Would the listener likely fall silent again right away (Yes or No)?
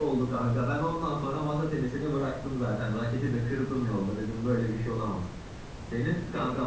Yes